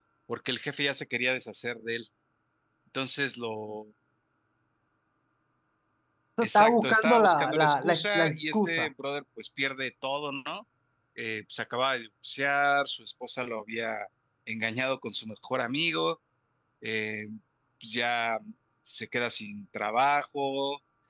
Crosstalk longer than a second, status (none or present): present